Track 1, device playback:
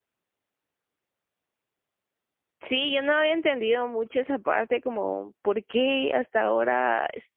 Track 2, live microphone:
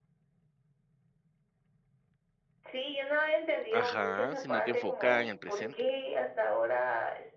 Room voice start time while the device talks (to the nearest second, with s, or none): 4 s